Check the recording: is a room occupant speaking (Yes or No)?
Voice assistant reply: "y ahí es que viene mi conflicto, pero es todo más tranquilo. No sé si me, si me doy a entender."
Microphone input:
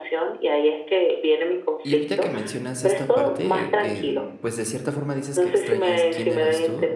Yes